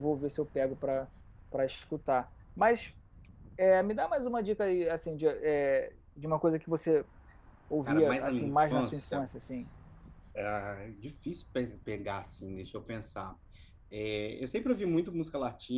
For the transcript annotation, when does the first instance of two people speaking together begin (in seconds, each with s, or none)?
7.9 s